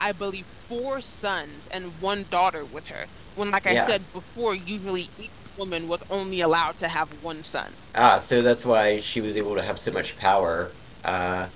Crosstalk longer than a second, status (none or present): none